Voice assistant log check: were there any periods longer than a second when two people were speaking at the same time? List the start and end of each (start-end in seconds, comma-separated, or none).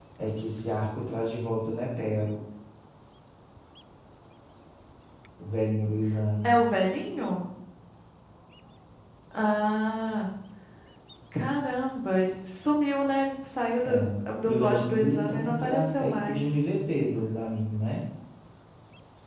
14.4-16.4